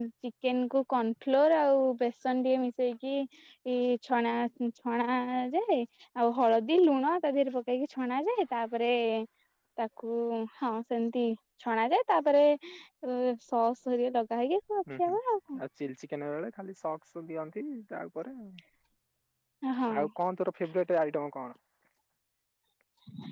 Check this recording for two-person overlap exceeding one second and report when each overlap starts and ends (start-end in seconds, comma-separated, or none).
none